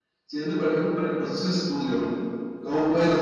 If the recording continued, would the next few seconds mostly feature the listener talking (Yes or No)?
No